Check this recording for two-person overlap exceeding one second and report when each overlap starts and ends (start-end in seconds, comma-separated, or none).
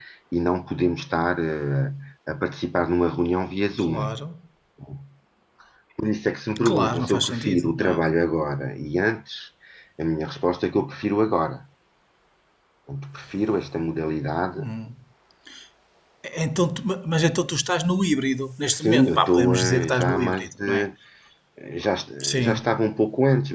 6.7-8.0, 18.7-20.9